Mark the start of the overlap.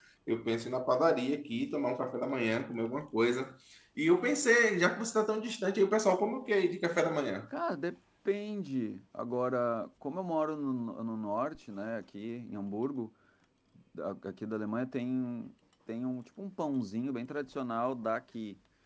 none

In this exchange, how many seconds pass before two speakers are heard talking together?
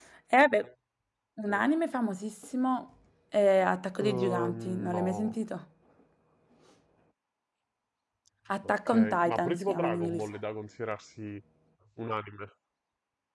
4 s

